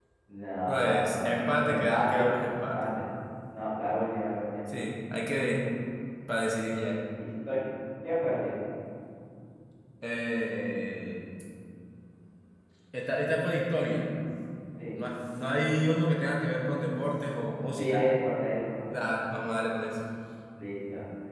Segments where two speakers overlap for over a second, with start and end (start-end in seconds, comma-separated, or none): 0.7-2.9